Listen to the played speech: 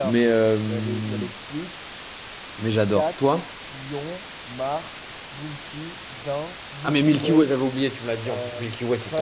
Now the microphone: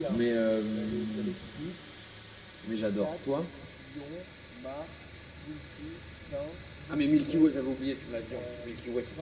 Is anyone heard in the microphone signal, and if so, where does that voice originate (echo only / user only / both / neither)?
echo only